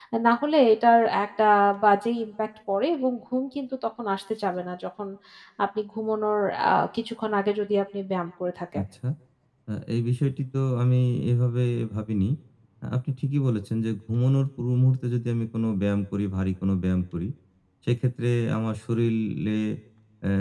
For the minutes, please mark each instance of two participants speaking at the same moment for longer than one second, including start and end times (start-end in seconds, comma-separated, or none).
none